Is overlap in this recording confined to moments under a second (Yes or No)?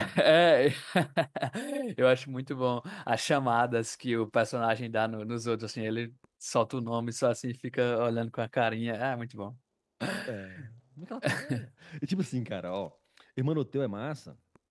Yes